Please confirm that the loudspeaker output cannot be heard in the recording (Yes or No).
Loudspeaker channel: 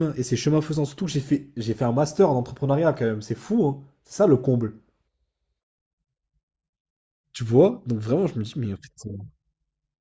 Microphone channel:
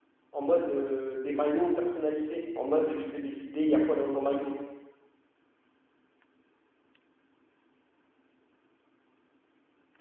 Yes